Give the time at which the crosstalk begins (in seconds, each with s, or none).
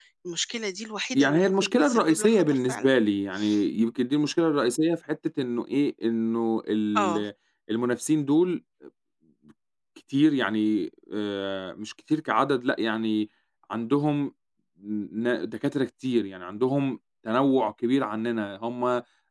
1.1 s